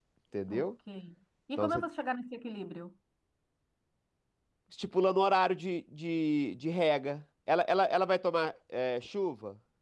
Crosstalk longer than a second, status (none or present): none